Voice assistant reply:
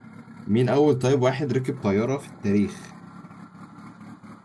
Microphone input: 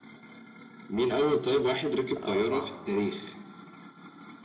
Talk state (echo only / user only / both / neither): both